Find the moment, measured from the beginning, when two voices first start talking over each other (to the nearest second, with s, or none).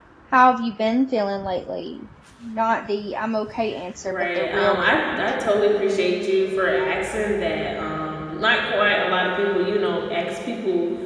4 s